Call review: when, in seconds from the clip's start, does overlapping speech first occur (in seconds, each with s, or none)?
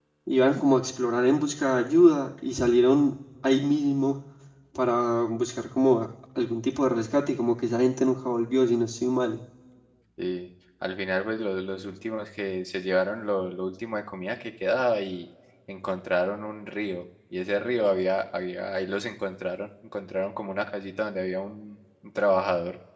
none